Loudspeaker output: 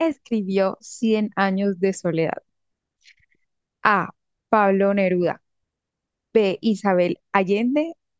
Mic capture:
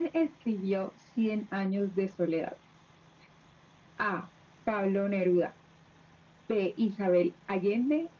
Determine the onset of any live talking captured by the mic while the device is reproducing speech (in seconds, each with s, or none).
none